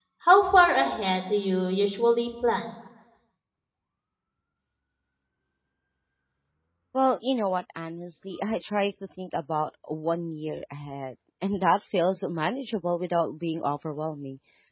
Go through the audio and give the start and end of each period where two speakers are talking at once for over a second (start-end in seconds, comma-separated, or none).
none